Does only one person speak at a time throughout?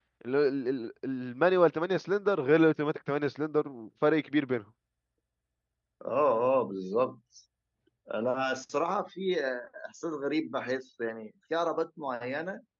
Yes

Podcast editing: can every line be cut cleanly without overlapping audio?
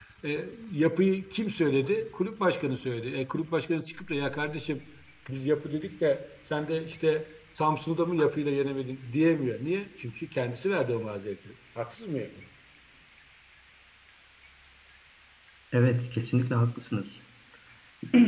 Yes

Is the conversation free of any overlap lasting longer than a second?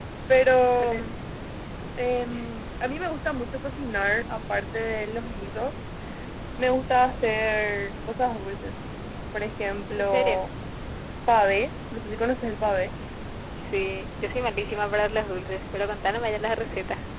Yes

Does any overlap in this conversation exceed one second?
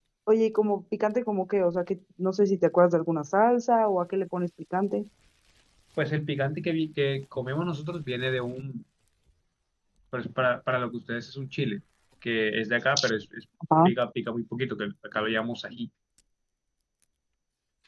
No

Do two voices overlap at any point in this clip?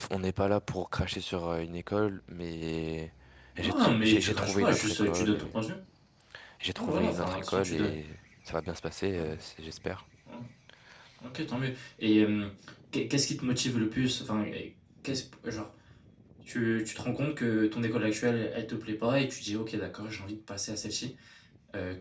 Yes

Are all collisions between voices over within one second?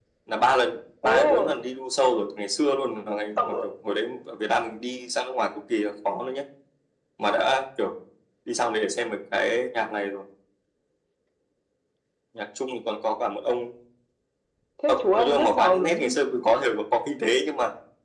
No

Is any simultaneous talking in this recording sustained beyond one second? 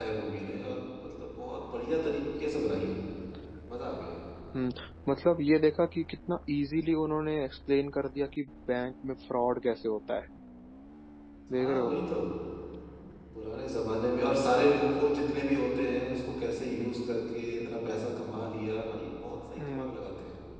No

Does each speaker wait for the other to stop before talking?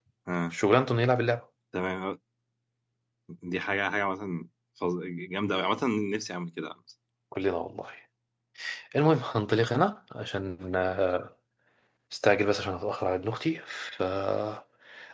Yes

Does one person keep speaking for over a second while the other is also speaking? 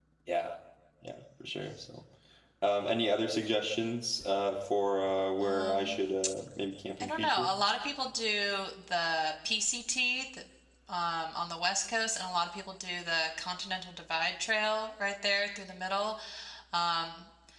No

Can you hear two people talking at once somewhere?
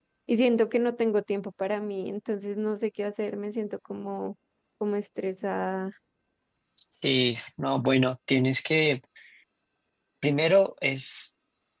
No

